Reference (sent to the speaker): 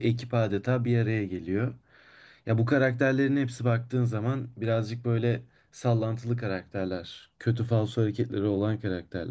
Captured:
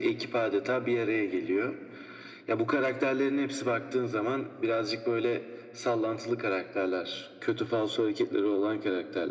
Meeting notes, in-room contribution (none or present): none